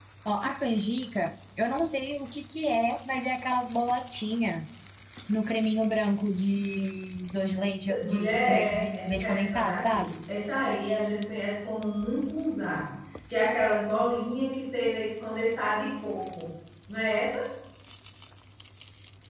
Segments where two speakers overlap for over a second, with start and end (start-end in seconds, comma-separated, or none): 7.9-10.1